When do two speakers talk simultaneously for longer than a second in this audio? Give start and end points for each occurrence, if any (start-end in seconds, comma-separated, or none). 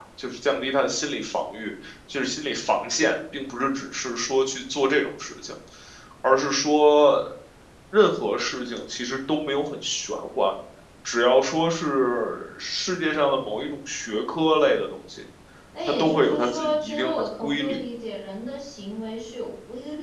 16.0-17.8